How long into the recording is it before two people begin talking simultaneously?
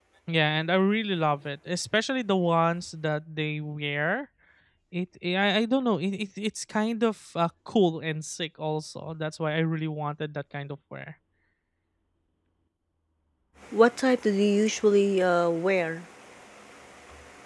none

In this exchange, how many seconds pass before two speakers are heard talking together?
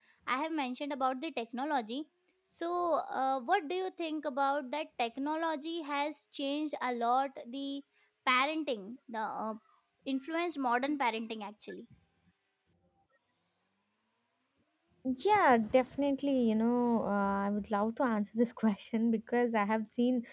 none

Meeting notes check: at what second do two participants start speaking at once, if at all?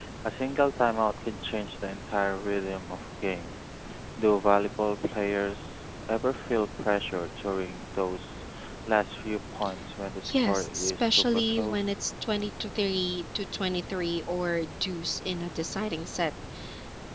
10.3 s

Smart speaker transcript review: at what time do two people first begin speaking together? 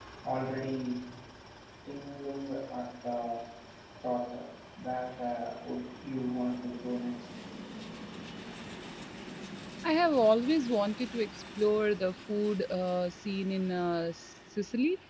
none

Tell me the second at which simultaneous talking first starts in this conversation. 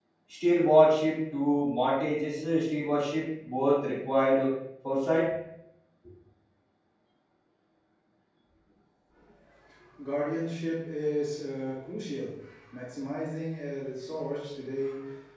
none

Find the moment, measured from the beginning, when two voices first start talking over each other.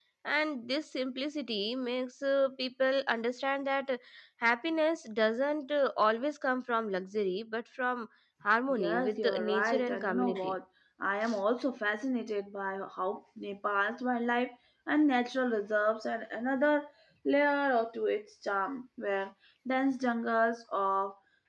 8.7 s

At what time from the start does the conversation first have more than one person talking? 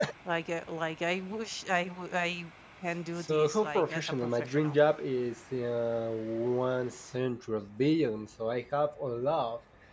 3.2 s

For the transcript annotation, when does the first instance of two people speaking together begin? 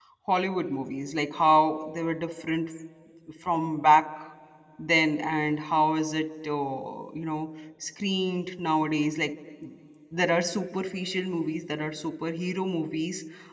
none

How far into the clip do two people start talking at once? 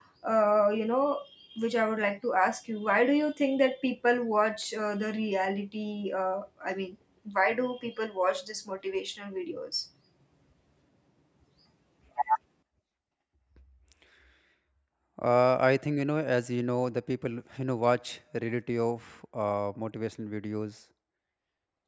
none

